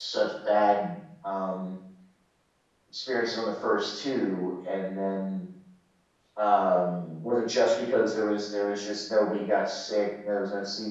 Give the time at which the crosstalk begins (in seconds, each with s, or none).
none